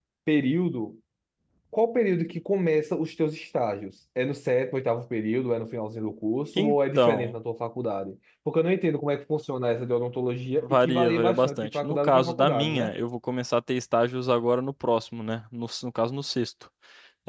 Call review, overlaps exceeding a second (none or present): present